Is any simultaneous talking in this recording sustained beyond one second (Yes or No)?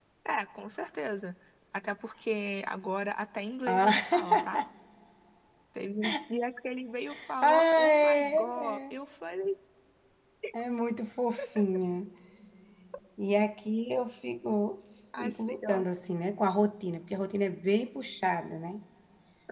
Yes